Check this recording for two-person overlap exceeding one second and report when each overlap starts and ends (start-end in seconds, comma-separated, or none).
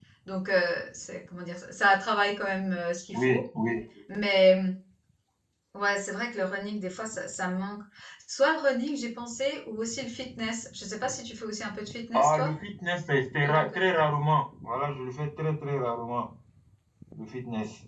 none